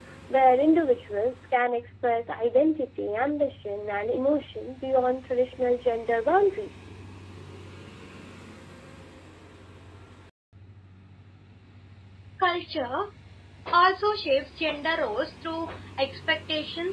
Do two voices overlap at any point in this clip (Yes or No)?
No